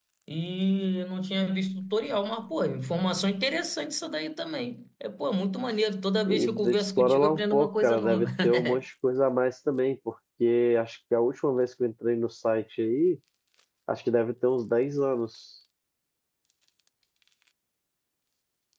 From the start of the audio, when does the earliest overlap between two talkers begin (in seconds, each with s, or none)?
6.3 s